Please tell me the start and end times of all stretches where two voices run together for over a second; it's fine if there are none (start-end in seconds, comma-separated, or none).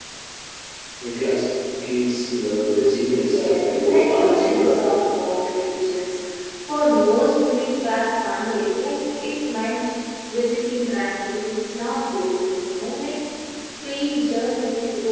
3.2-4.8